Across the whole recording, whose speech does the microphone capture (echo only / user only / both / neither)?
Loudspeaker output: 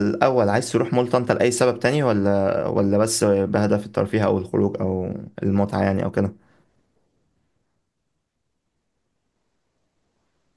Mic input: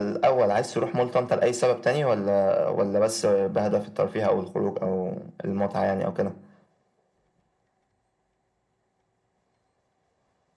echo only